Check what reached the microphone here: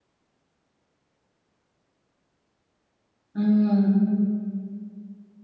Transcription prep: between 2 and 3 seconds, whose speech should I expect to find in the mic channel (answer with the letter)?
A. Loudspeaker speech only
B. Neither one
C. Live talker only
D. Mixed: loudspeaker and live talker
B